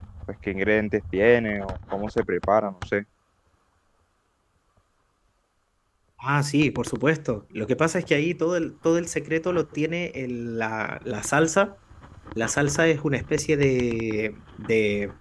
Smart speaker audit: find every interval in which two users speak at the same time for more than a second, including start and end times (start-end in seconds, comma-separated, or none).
none